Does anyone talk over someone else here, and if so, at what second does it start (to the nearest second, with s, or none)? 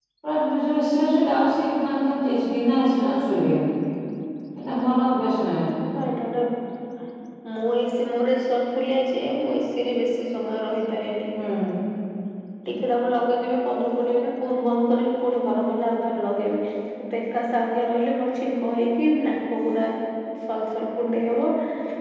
none